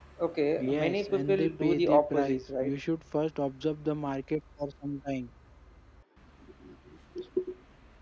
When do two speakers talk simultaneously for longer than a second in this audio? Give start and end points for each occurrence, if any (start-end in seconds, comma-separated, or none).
0.6-2.7